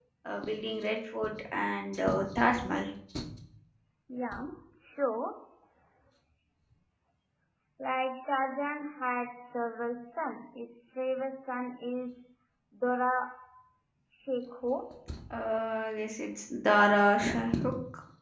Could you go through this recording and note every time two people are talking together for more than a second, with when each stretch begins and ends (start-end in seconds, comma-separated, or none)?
none